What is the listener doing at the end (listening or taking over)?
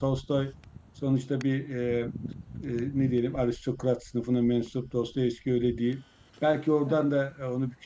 listening